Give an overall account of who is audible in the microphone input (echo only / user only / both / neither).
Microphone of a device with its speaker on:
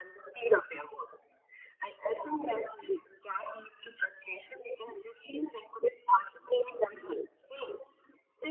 echo only